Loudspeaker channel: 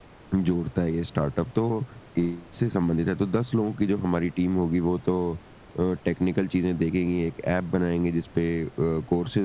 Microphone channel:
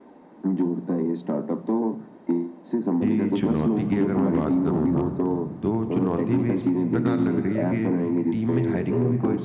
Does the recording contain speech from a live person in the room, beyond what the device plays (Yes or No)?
Yes